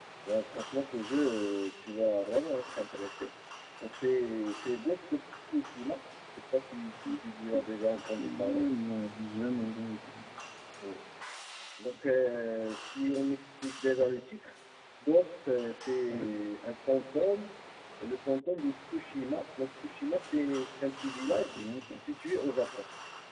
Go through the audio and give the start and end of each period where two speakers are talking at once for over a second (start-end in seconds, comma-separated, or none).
7.1-8.7